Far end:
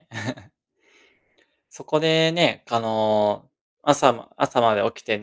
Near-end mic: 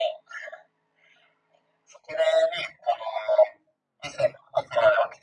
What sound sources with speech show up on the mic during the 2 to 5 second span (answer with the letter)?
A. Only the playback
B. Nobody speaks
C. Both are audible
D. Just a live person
A